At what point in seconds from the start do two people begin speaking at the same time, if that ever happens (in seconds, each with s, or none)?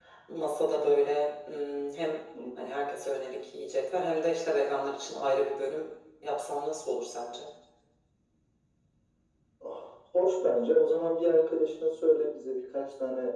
none